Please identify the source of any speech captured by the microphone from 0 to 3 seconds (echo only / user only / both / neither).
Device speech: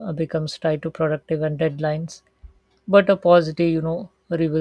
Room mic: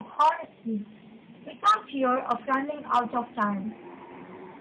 user only